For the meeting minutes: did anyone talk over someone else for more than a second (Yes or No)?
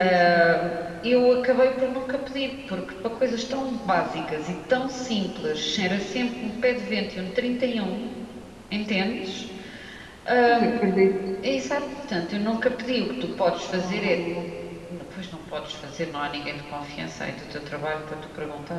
No